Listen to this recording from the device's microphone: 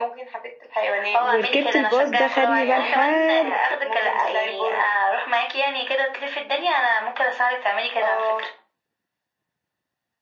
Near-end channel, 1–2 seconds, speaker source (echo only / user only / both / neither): both